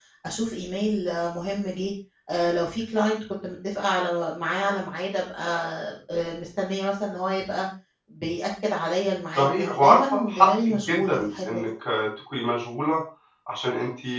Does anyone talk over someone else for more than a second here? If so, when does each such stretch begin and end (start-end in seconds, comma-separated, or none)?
9.3-11.6